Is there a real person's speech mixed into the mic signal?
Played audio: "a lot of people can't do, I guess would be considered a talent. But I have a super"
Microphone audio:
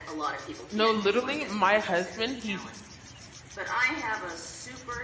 Yes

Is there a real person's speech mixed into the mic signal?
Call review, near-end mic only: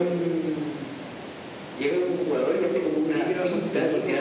Yes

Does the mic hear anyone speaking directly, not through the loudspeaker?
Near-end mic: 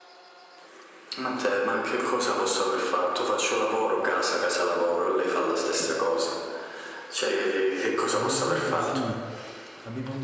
Yes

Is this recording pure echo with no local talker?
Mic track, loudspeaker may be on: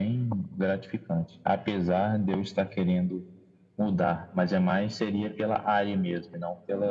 Yes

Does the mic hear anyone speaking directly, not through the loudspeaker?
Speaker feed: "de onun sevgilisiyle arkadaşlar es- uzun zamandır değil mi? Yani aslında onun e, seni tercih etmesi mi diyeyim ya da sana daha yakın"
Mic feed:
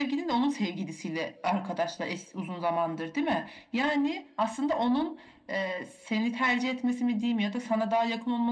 No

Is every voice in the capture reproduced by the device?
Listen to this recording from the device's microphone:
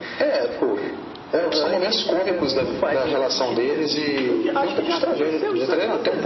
Yes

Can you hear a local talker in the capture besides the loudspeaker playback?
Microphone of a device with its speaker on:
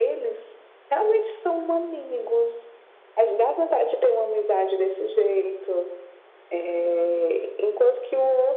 No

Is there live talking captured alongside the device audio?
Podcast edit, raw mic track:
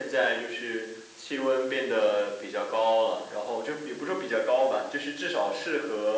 No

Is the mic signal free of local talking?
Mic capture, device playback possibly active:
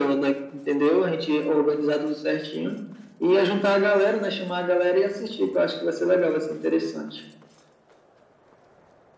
Yes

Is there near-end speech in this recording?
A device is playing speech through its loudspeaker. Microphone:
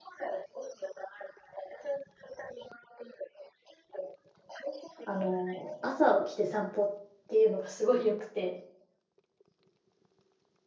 Yes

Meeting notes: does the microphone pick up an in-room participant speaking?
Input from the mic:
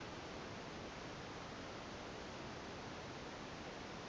No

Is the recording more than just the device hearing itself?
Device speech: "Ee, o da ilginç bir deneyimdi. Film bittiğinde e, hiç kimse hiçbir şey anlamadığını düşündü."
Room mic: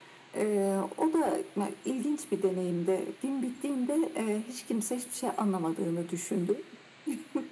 No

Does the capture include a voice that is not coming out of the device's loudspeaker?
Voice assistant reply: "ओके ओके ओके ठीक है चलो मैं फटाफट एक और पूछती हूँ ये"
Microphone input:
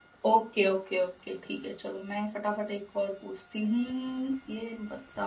No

